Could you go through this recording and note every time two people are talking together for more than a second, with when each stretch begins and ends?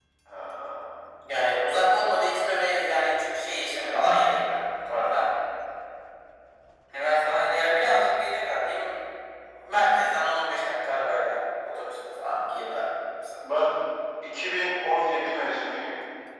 none

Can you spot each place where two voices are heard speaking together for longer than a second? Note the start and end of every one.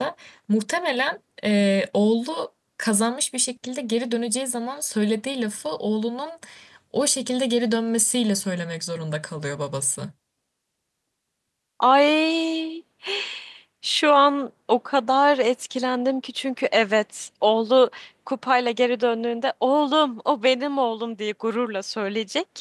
none

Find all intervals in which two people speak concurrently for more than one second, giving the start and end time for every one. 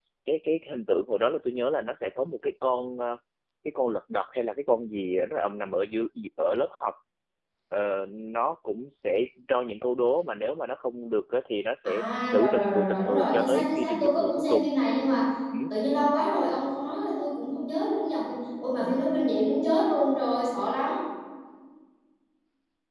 11.8-14.7

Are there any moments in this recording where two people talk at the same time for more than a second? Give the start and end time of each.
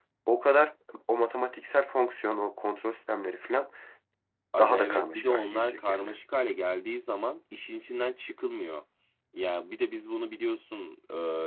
4.6-6.1

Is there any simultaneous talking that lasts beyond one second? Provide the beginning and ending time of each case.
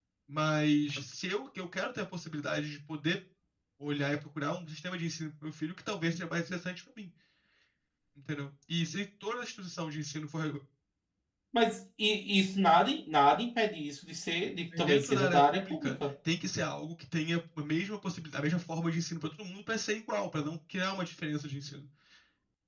14.8-16.0

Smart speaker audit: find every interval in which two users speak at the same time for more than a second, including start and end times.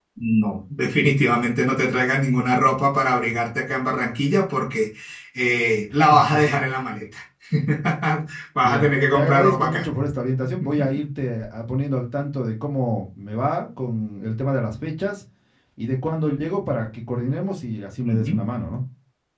8.6-9.9

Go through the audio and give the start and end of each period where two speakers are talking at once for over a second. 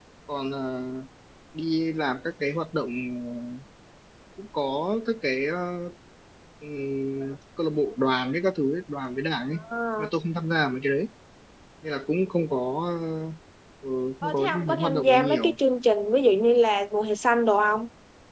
14.2-15.5

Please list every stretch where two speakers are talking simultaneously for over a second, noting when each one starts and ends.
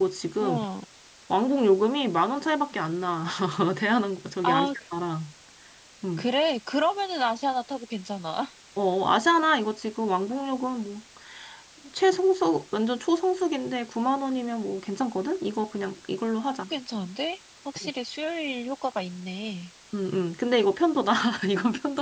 none

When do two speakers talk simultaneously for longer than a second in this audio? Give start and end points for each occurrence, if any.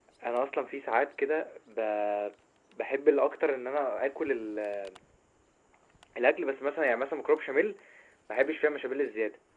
none

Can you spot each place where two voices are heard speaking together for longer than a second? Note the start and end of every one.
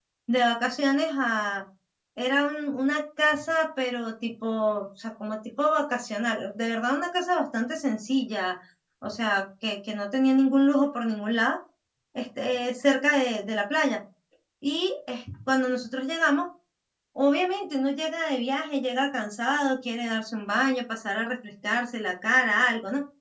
none

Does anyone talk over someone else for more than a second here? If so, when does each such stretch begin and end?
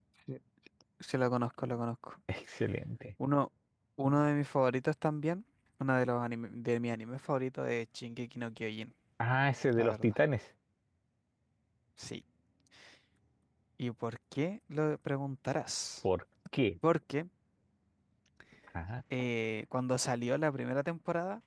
none

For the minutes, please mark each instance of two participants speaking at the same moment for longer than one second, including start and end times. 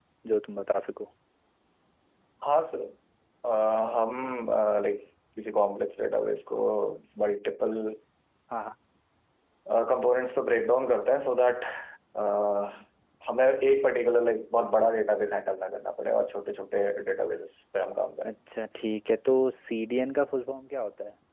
none

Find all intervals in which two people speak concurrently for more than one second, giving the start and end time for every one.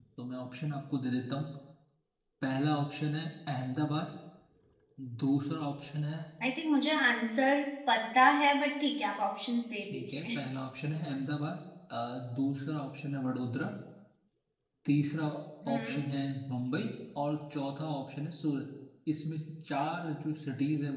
none

